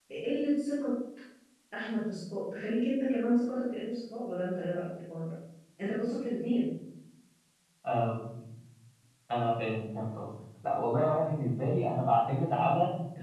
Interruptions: none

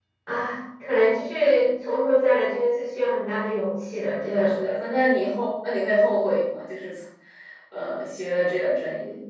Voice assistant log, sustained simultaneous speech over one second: none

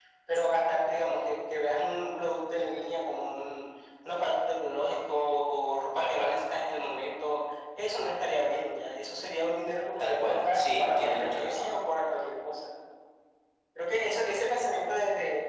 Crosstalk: present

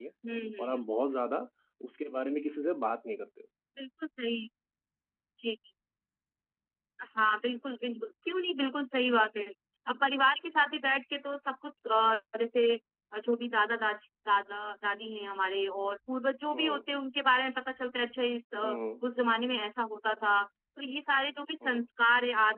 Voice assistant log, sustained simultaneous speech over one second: none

